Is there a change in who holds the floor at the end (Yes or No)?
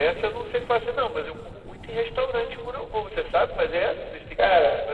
Yes